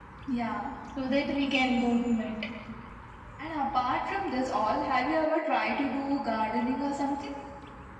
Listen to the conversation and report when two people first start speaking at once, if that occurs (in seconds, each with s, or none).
none